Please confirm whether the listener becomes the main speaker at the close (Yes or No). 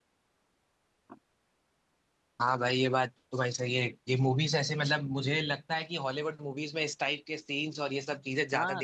Yes